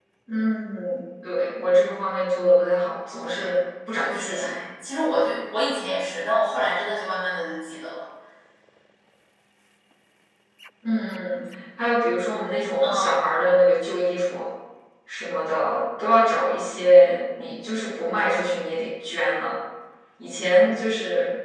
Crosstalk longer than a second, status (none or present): none